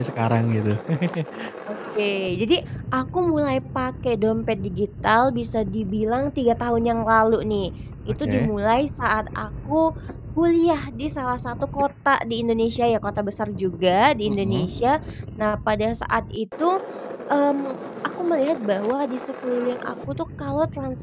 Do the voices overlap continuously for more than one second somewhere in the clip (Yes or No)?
No